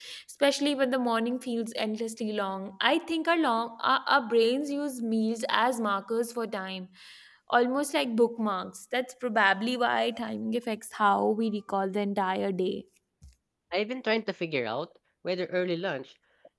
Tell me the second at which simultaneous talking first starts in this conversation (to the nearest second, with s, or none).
none